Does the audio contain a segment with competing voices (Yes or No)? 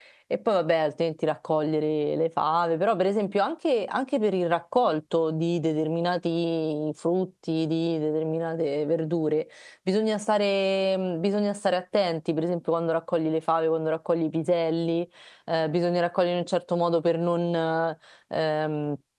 No